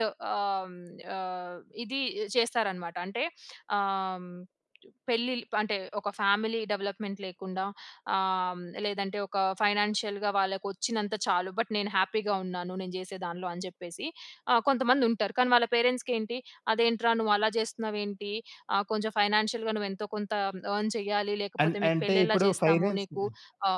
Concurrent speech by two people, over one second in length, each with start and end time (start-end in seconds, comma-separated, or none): 21.6-23.2